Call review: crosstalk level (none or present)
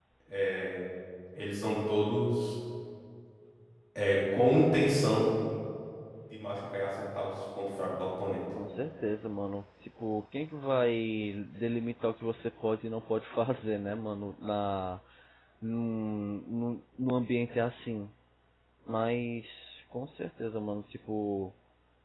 none